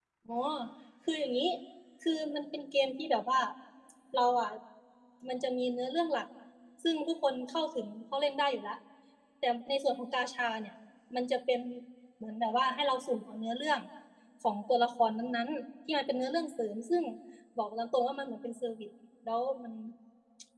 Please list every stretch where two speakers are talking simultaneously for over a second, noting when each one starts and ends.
none

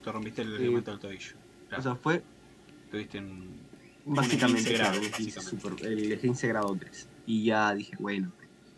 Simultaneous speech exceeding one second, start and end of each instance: 4.2-5.5

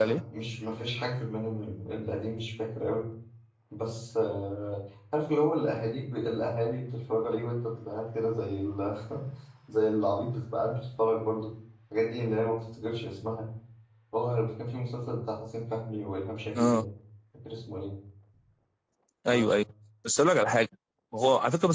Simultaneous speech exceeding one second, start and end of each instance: none

